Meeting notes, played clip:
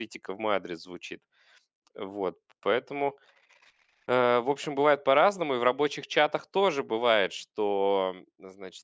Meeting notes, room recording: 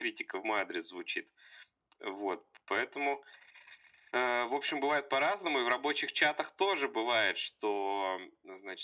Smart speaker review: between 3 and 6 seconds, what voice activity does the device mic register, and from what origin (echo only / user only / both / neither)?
echo only